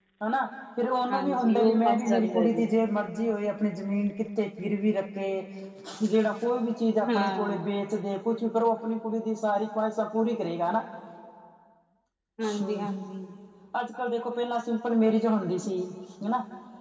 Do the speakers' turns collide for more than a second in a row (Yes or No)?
Yes